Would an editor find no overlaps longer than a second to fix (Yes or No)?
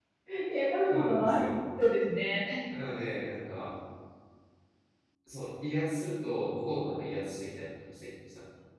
Yes